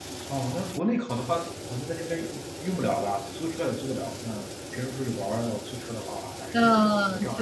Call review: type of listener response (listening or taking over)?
taking over